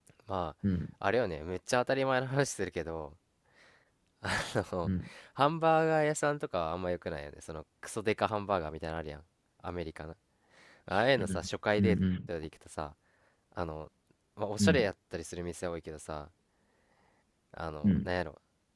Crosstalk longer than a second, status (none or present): none